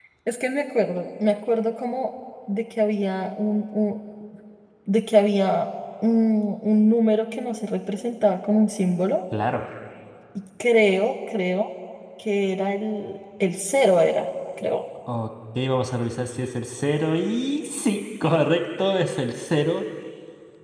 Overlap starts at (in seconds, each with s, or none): none